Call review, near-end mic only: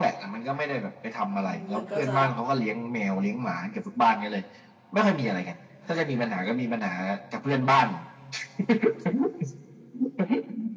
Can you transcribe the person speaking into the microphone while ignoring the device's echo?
อืมมันก็จะ

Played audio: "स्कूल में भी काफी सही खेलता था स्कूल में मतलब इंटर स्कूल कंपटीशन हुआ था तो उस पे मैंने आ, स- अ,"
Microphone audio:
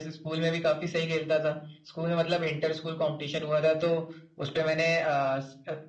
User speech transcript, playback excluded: none

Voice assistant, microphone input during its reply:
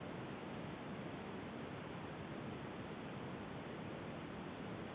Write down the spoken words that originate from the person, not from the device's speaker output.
none

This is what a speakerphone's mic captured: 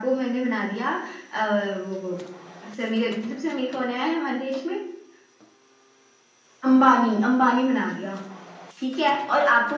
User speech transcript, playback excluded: none

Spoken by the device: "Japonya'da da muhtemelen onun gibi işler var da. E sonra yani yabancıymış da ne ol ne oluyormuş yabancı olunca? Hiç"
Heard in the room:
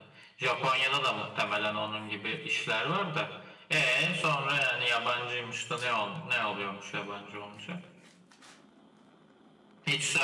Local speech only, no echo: none

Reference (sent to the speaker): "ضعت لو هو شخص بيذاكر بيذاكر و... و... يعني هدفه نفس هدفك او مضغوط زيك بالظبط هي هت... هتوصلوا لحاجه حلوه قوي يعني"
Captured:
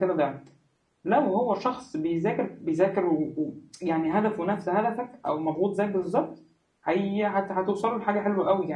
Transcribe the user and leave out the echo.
none

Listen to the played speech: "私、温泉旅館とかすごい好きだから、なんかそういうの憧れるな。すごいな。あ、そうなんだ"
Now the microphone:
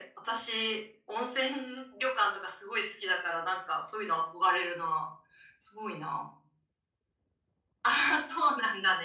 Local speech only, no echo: none

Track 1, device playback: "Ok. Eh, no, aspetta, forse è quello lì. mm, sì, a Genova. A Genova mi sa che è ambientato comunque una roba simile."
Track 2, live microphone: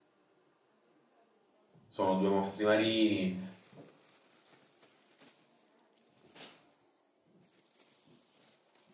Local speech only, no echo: Sono due mostri marini,

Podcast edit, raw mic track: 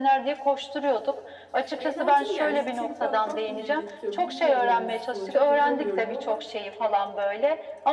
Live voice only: "Şu eğlenceye geldik deyip bakmak mı gerekiyor bilmiyorum aslında. Çok yapamıyorum ama

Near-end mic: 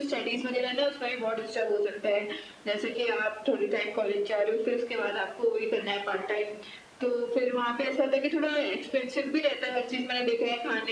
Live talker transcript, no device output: none

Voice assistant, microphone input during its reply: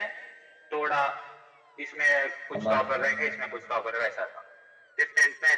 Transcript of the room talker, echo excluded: हमारा

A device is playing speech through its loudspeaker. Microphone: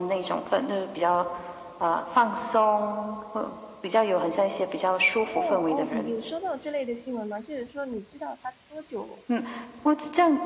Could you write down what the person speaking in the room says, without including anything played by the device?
哦哦，你有收到这类的新闻吗？就是说，你知道它多久，

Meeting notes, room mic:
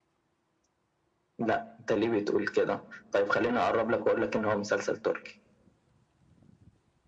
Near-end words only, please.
none

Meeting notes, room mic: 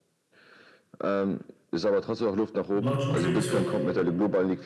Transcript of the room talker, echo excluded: Margin tradest du auch?

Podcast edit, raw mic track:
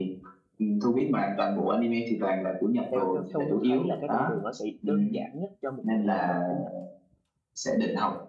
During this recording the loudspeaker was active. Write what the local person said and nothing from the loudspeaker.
theo theo theo Thu thấy là cái con đường nó sẽ đơn giản nhất cho một người học mới học tiếng Nhật.

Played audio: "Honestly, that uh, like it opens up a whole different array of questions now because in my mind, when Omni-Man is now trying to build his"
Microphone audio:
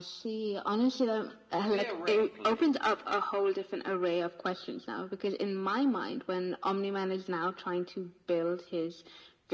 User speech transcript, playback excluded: theoretically

